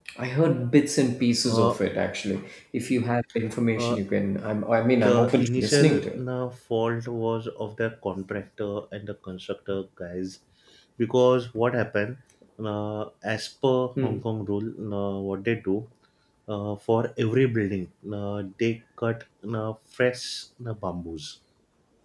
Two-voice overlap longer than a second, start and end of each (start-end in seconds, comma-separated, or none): 5.0-6.2